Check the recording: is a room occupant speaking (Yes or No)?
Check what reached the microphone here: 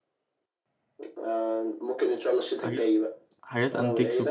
Yes